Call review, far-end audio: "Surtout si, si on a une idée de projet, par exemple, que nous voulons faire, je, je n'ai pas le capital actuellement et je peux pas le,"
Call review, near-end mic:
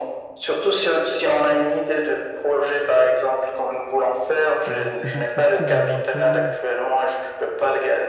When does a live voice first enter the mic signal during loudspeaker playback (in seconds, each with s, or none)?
4.7 s